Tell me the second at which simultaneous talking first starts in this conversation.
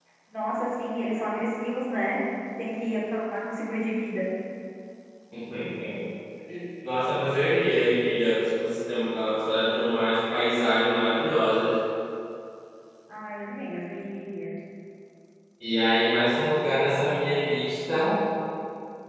none

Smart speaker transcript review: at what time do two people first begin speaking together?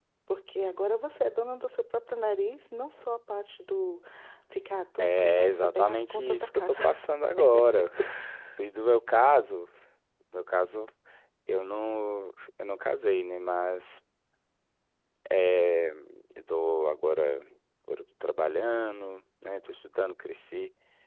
5.0 s

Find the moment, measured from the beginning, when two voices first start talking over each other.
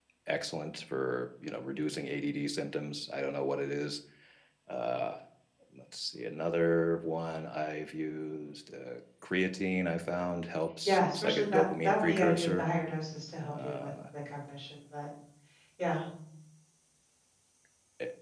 10.8 s

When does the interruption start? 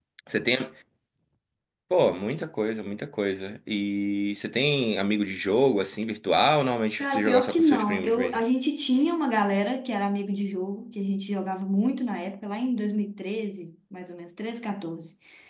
7.0 s

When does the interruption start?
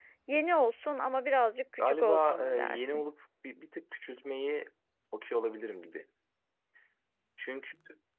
1.8 s

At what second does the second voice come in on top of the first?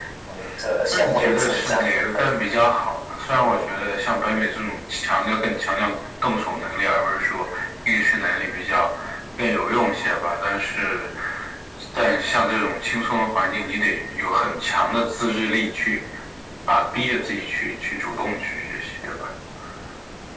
0.9 s

